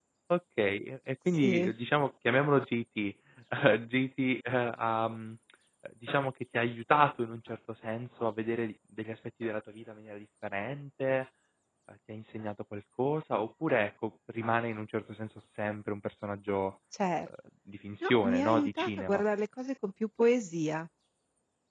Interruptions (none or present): present